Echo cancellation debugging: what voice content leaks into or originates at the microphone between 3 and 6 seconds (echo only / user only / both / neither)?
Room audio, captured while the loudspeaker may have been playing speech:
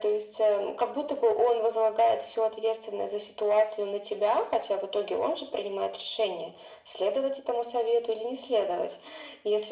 echo only